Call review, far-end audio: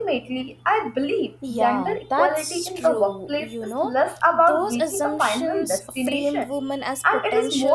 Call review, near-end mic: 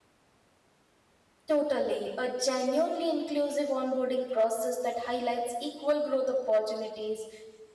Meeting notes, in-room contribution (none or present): present